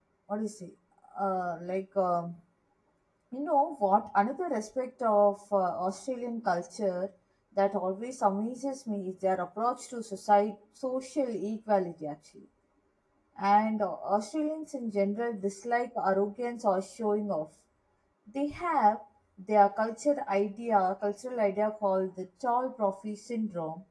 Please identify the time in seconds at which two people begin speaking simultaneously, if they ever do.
none

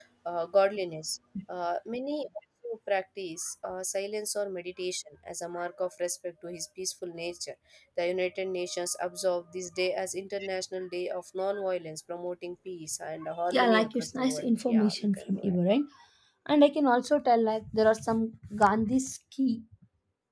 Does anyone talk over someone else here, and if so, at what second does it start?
14 s

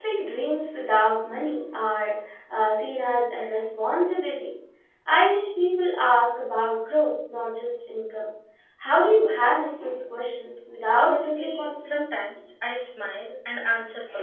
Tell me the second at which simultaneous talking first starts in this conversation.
11 s

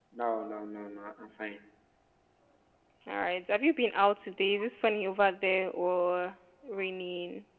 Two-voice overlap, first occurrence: none

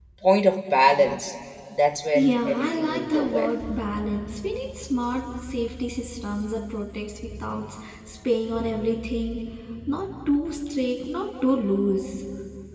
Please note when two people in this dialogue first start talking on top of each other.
2 s

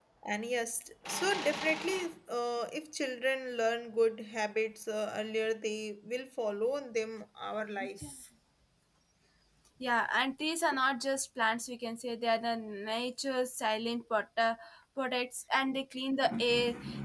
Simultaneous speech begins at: none

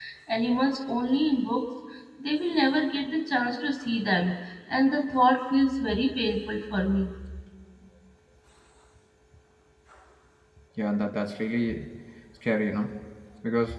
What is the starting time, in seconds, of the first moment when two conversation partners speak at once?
none

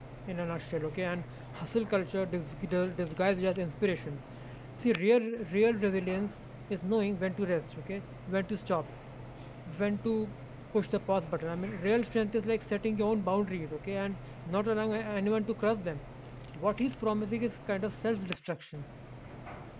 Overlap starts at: none

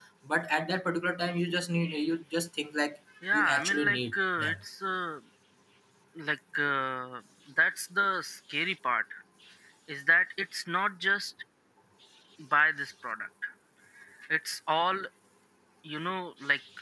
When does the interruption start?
3 s

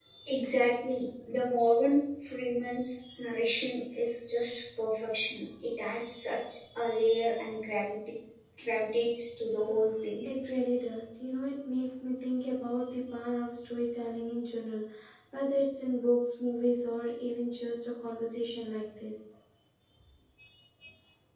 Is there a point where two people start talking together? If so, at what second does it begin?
none

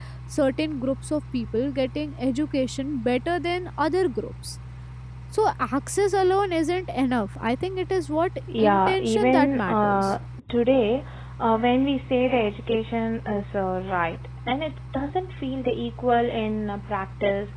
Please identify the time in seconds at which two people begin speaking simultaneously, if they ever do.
8 s

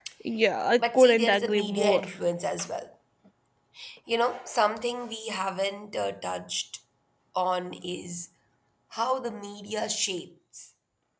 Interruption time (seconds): 1 s

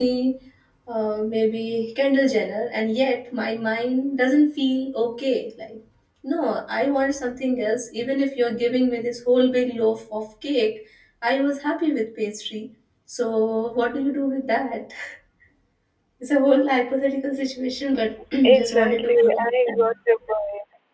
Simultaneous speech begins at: 18 s

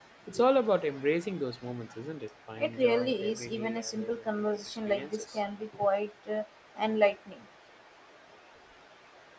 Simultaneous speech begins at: 3 s

